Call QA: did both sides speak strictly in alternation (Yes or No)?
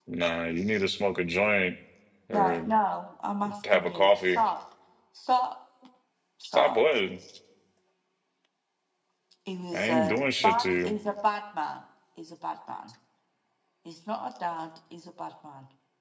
No